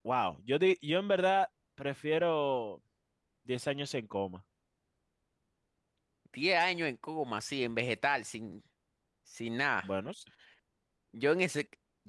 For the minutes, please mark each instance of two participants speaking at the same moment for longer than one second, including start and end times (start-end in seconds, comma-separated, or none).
none